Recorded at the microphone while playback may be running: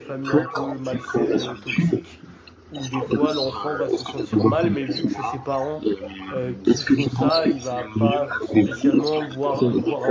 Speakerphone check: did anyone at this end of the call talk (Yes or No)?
Yes